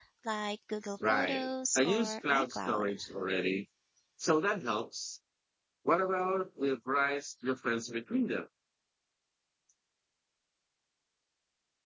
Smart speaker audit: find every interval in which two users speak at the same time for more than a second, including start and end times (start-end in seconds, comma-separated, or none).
1.1-2.9